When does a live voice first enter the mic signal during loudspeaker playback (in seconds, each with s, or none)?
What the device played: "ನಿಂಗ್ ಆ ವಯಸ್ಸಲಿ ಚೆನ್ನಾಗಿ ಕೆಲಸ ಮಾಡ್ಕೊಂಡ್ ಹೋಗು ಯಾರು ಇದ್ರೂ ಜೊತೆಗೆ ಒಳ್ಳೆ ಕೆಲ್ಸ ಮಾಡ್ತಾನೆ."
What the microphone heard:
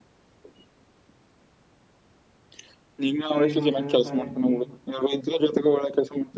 3.4 s